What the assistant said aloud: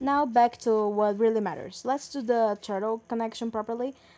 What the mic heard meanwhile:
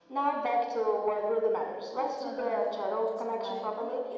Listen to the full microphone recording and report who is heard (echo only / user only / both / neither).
both